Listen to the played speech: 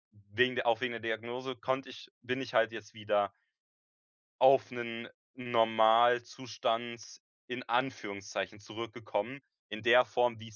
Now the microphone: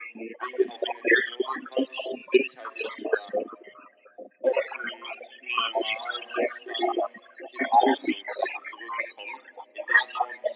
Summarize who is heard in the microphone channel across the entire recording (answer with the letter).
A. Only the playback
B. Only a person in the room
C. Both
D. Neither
A